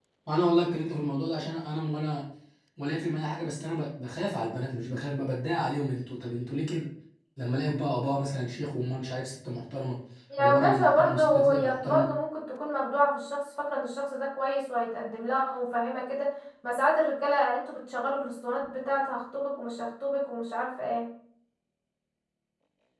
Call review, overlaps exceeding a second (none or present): present